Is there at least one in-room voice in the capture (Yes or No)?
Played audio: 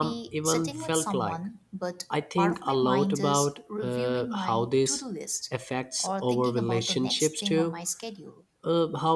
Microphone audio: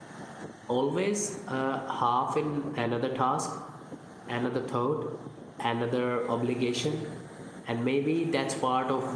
Yes